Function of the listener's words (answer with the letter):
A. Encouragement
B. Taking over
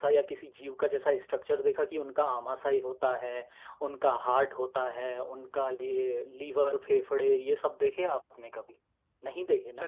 B